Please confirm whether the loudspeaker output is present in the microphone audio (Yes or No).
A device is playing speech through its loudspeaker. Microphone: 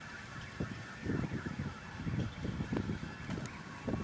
No